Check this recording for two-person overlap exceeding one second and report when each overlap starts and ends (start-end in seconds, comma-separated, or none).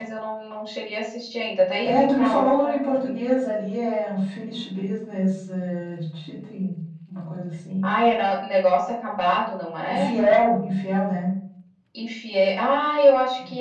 1.8-3.1